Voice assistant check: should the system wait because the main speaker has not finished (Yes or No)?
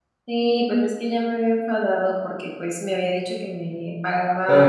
Yes